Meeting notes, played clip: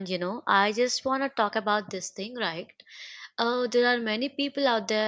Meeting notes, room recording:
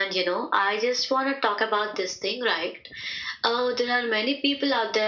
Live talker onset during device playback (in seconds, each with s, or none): none